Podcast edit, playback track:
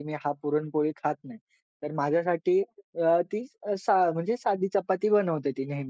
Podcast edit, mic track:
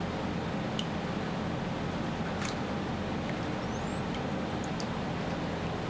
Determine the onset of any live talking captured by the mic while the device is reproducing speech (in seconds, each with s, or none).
none